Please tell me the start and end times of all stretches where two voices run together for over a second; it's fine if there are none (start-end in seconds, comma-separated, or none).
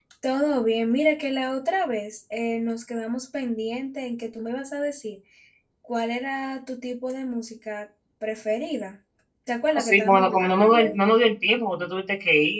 9.8-11.0